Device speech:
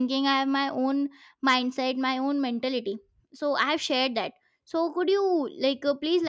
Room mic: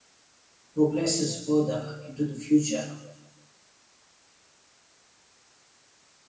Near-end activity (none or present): present